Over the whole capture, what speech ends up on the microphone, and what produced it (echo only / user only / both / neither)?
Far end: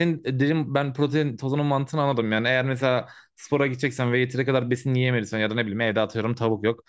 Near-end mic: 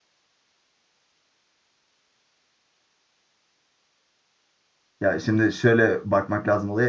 user only